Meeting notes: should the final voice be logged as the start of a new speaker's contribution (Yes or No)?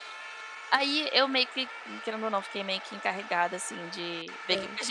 No